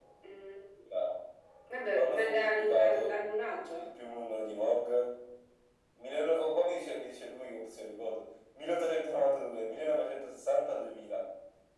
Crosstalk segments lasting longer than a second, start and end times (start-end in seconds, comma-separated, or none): 1.9-3.1